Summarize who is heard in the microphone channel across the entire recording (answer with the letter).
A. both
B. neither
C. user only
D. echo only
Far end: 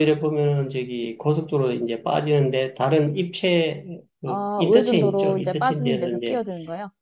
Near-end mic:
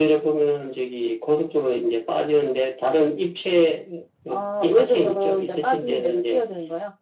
D